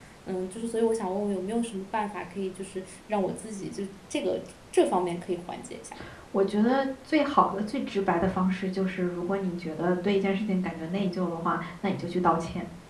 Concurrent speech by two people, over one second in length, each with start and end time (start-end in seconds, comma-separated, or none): none